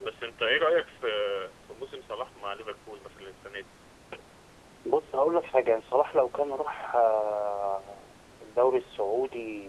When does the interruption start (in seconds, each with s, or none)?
none